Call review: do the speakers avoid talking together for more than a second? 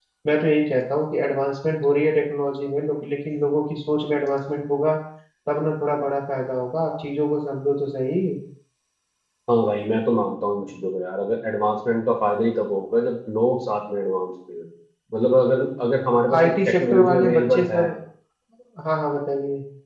No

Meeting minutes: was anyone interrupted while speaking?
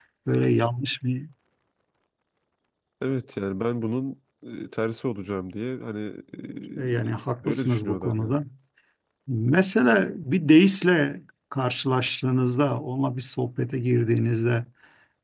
Yes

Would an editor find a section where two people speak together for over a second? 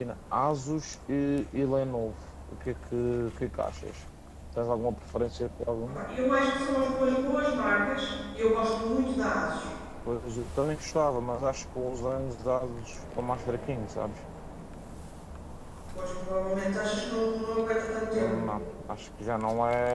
No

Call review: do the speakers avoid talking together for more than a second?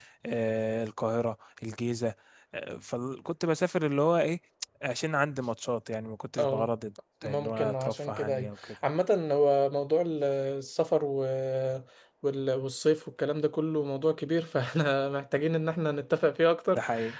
No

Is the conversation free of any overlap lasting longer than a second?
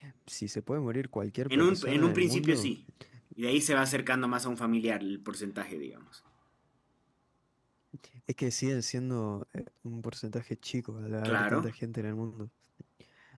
No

